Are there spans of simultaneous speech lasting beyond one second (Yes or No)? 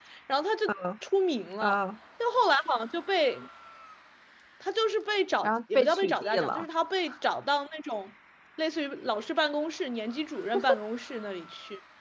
Yes